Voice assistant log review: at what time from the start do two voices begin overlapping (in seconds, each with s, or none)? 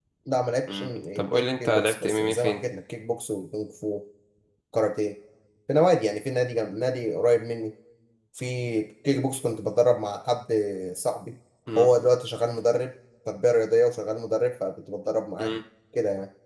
0.7 s